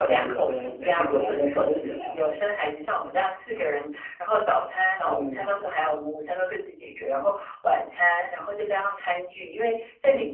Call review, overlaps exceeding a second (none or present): present